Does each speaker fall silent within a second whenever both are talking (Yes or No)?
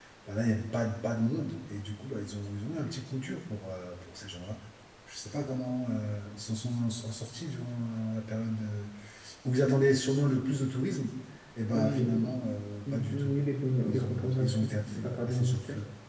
No